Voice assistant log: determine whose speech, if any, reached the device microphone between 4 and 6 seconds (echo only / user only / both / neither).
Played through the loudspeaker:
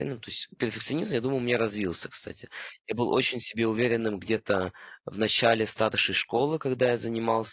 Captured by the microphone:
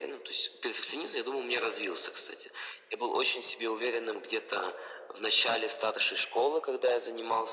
echo only